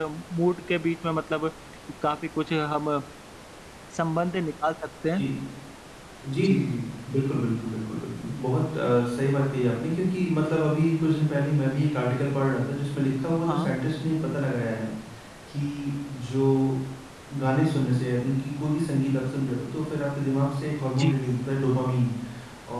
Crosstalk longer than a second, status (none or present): none